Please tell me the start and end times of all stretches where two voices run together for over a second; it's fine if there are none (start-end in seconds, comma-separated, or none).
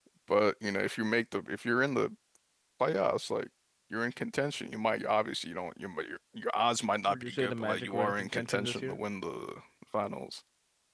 7.1-9.0